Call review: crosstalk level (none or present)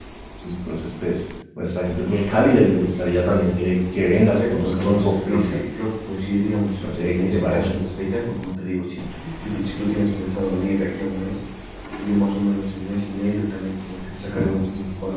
present